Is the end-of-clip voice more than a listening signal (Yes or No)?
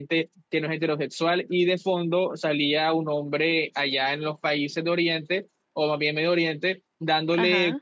No